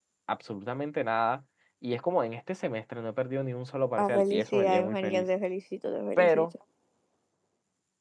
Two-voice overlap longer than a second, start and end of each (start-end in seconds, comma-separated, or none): 4.0-5.3